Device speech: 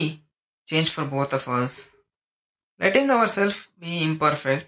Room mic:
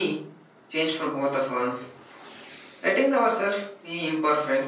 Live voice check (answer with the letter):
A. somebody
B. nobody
B